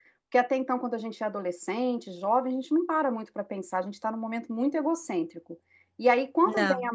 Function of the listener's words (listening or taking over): listening